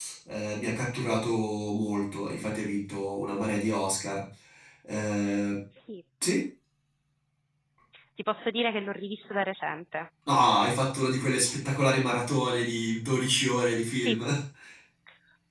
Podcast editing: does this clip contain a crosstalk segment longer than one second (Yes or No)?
No